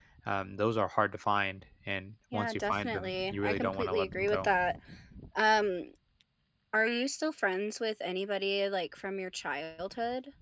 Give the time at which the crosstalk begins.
2.3 s

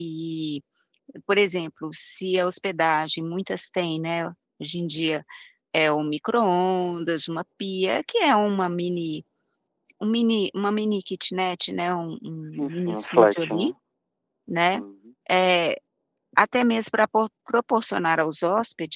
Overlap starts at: 12.5 s

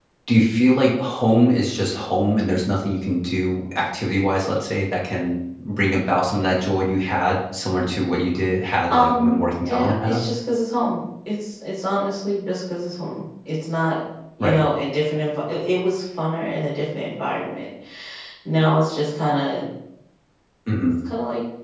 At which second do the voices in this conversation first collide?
8.9 s

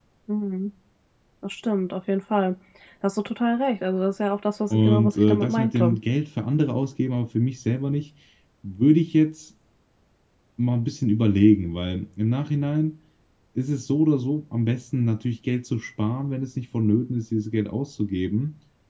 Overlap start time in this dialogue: 4.7 s

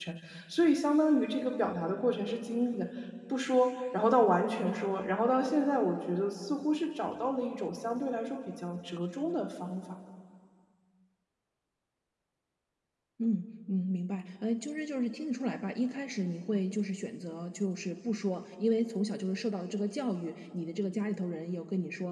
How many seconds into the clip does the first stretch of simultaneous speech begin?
none

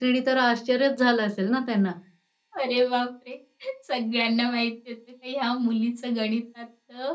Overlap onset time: none

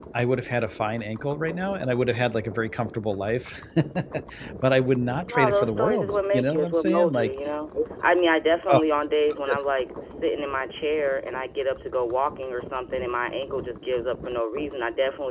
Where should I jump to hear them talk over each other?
5.3 s

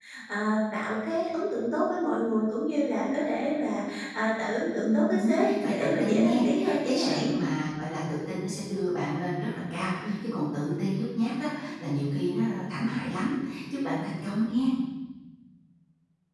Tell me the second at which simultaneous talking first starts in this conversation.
4.8 s

